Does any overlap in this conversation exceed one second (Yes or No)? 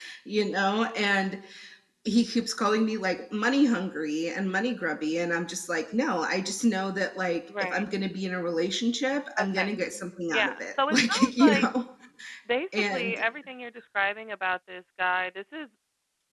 Yes